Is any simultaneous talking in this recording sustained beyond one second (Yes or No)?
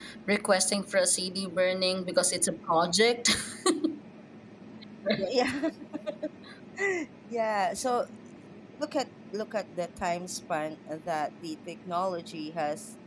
No